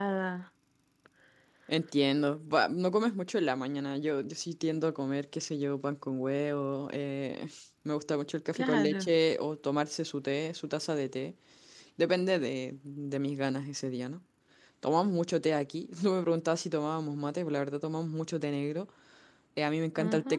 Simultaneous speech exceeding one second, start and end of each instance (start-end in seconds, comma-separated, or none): none